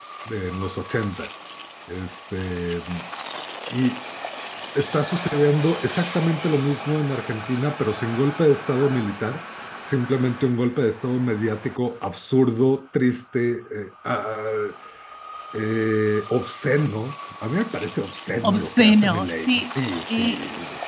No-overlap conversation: No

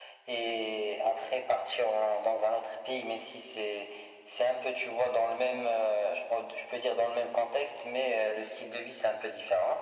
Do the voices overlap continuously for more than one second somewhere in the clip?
No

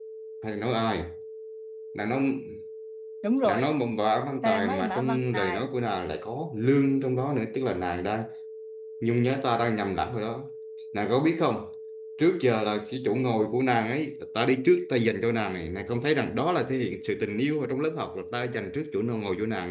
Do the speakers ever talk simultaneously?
Yes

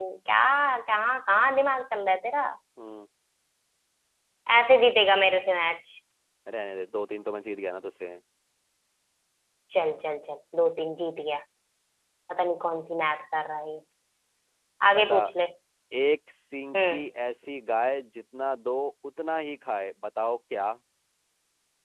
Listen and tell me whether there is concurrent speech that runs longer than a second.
No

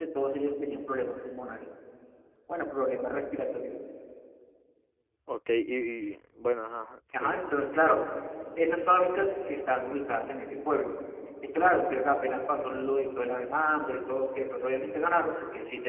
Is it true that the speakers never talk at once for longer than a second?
Yes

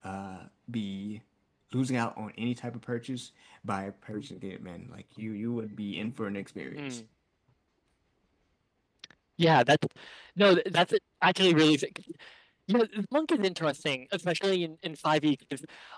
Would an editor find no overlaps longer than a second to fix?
Yes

